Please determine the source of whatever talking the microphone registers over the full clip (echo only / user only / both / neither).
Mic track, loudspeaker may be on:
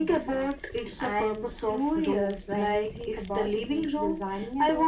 echo only